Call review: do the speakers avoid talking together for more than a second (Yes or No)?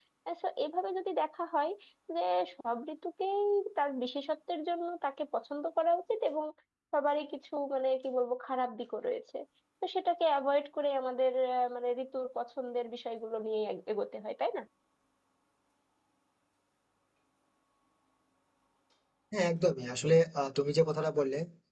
Yes